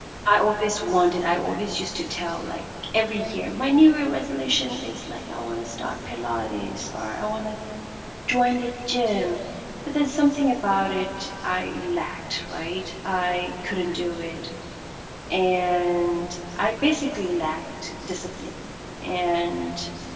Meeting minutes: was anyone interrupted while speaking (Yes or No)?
No